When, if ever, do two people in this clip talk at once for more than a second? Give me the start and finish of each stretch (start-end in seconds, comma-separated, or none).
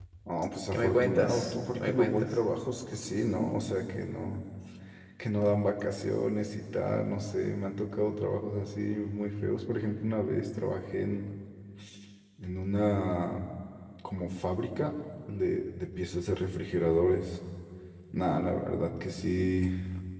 0.7-2.4